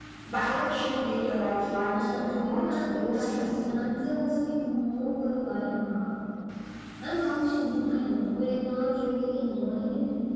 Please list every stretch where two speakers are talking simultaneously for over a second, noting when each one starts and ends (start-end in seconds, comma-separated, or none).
1.9-3.8